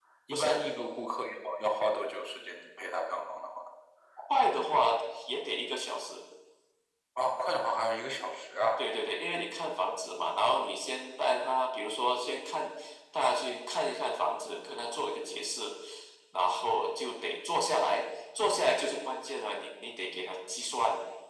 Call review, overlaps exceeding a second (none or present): none